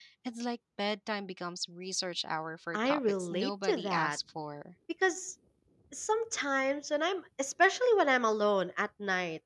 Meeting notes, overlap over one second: present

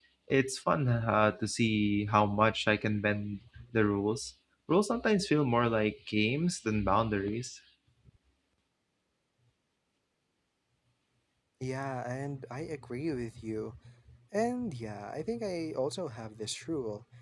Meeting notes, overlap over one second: none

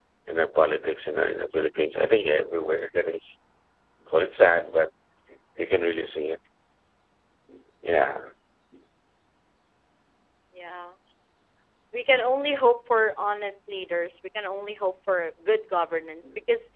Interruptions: none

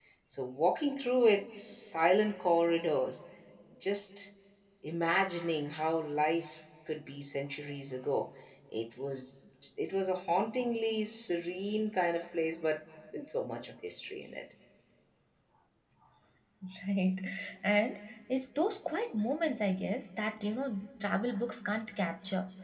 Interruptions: none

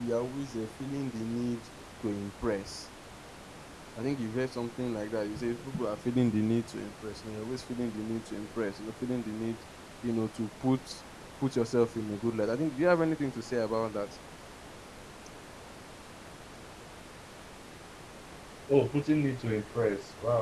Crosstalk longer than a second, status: none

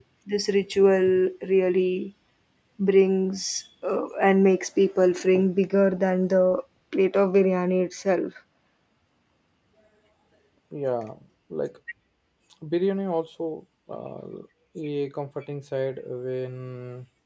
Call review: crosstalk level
none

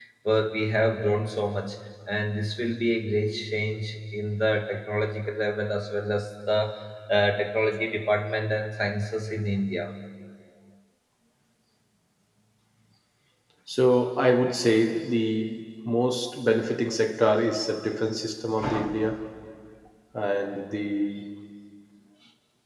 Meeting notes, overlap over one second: none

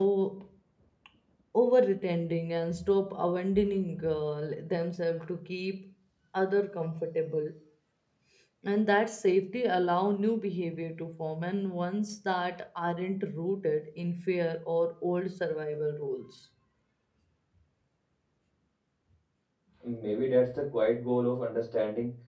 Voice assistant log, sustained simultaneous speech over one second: none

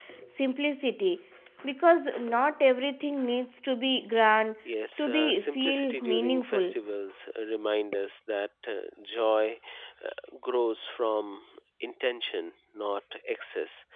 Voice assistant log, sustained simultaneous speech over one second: present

